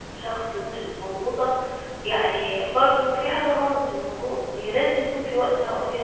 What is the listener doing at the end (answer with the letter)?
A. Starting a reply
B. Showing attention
B